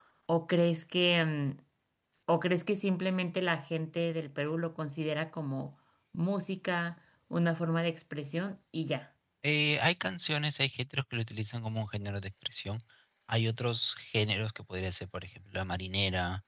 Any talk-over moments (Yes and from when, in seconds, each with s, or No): No